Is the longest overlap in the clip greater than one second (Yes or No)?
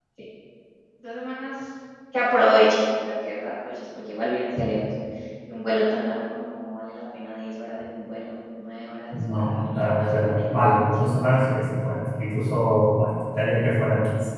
Yes